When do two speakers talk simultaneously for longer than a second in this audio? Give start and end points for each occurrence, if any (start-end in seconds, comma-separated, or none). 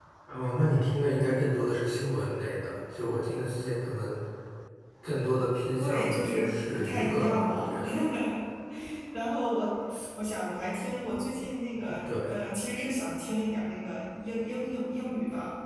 5.8-7.8